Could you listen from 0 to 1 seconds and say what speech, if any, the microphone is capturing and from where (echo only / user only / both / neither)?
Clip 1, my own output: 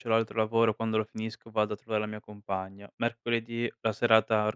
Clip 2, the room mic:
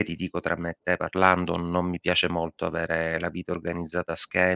user only